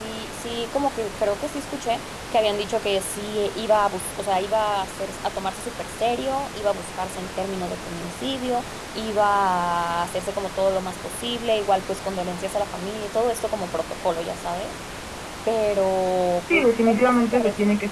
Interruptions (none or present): present